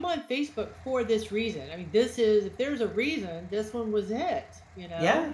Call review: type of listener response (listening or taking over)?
taking over